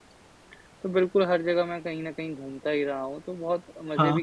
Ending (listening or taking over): listening